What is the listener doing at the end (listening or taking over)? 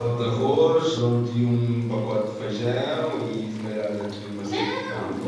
listening